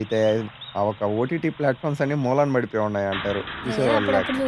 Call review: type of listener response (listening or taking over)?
taking over